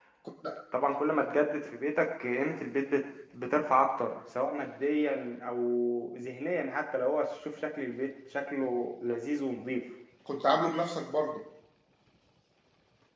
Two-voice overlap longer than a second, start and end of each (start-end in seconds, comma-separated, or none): none